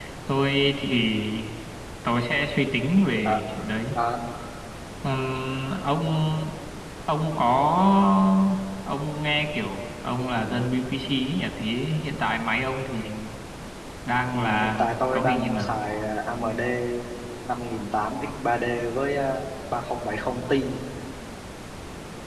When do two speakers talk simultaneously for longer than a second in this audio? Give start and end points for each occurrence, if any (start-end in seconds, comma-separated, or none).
14.3-15.8